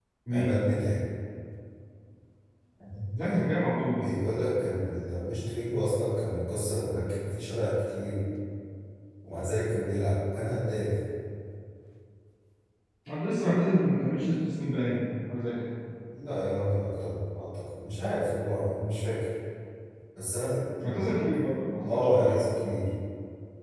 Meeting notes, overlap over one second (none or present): none